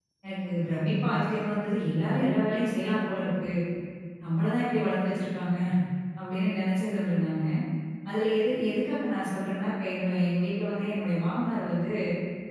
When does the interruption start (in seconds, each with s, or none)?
none